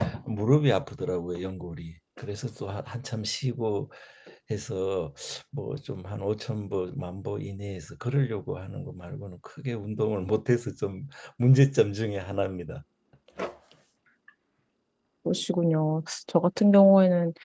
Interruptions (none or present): none